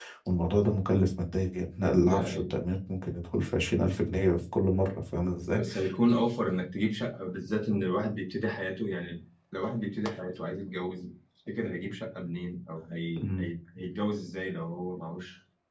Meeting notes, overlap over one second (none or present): none